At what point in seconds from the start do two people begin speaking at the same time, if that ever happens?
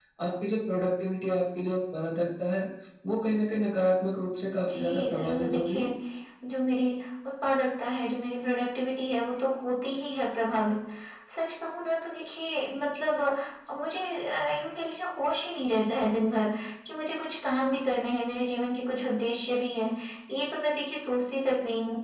4.7 s

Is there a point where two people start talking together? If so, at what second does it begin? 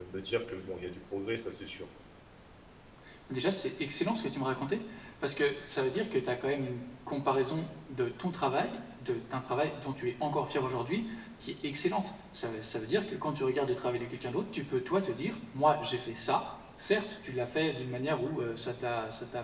none

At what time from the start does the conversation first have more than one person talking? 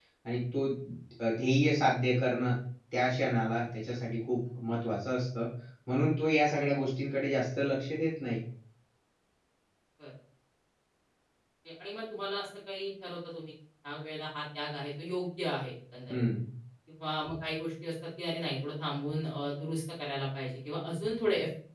none

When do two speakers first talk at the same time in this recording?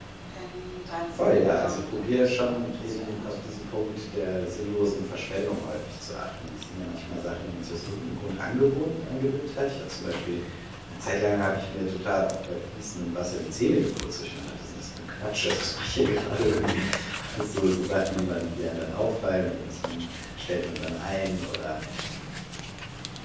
1.1 s

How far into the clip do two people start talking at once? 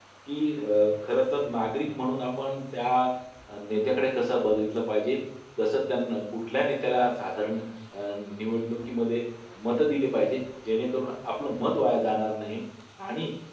none

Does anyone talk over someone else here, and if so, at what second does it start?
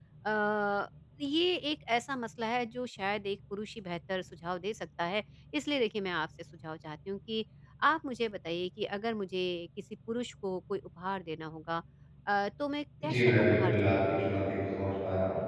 13.0 s

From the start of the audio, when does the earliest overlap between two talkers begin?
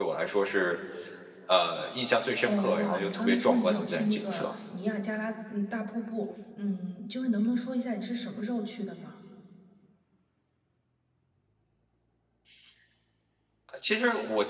2.4 s

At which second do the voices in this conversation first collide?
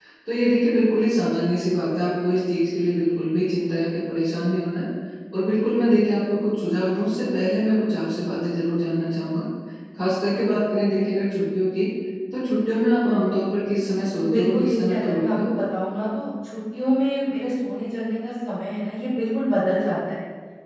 14.2 s

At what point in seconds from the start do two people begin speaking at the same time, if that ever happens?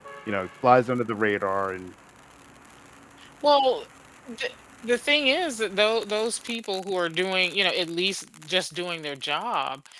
none

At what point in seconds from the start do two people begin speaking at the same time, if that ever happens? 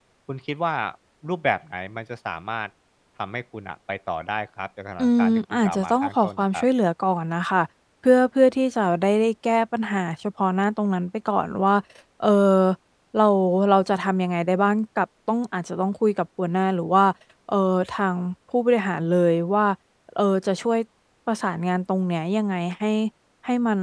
5.0 s

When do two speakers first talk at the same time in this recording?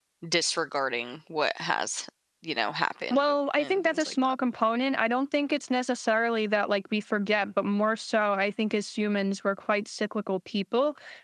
3.1 s

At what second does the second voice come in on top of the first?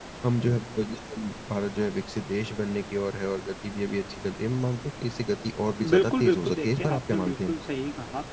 5.8 s

